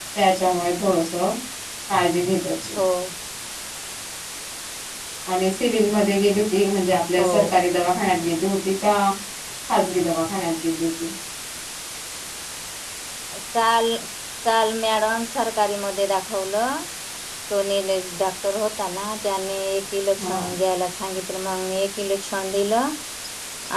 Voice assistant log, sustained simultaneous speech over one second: none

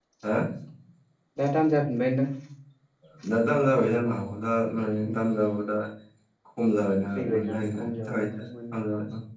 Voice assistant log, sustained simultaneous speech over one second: present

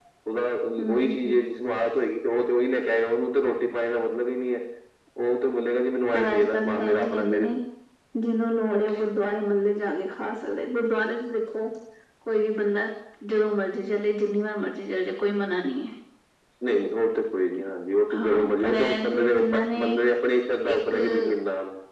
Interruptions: present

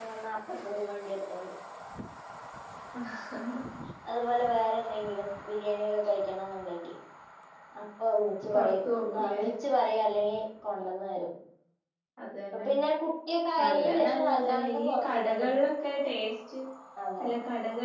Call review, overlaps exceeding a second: present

